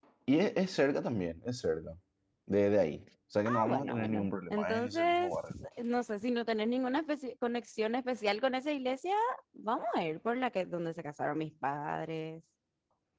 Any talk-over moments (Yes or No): Yes